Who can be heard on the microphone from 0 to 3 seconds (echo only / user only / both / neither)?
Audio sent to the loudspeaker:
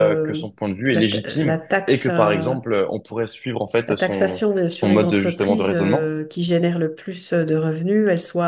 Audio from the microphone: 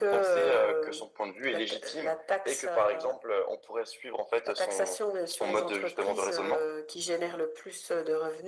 echo only